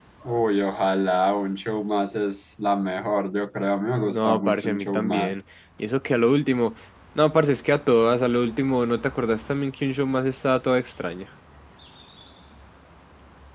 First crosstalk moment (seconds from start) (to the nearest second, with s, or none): 4 s